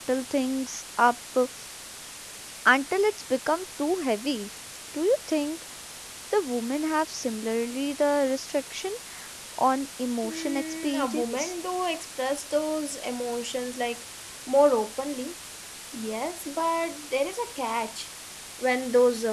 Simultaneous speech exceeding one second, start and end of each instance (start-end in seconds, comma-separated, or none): 10.2-11.5